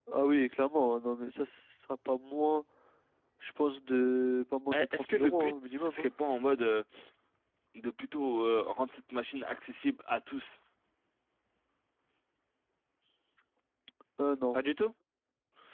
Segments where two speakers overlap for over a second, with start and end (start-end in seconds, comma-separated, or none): 4.7-6.1